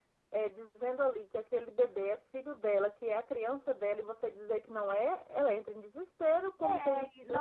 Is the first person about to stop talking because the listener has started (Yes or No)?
Yes